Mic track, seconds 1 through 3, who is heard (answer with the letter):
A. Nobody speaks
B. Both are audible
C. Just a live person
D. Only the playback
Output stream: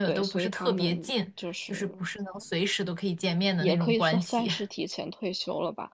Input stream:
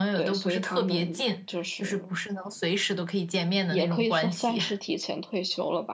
D